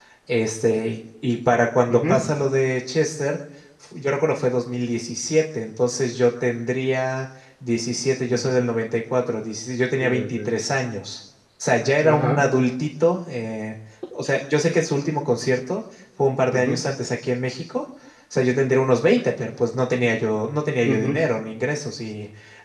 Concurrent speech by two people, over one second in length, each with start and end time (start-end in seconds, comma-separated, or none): none